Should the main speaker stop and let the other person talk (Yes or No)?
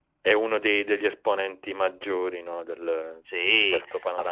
Yes